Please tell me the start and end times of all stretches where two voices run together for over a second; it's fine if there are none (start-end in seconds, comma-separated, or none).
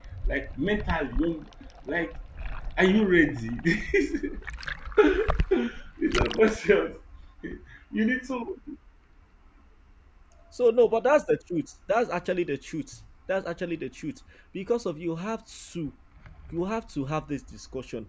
none